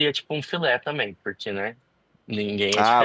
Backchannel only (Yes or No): No